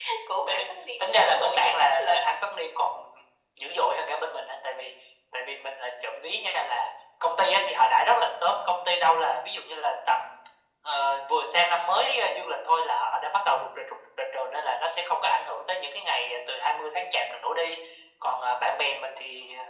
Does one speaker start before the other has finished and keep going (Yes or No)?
Yes